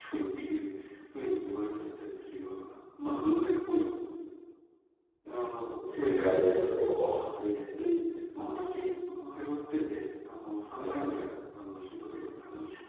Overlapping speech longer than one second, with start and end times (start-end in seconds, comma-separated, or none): 5.9-7.1